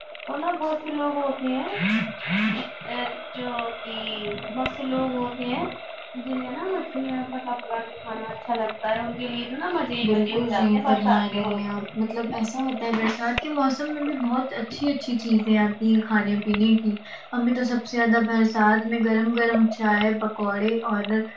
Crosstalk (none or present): present